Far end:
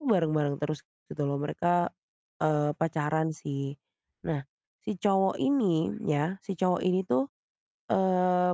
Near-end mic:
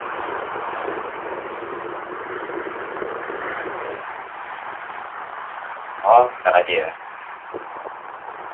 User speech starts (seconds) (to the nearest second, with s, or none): 6 s